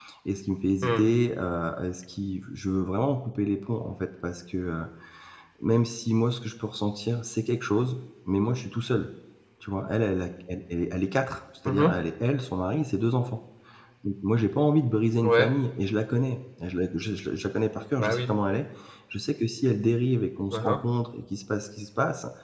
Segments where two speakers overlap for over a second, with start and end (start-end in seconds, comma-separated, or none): none